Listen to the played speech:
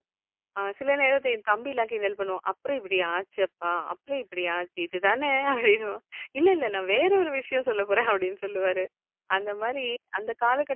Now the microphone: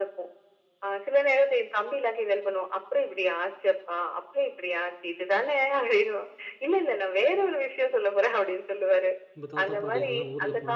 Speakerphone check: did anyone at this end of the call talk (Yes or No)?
Yes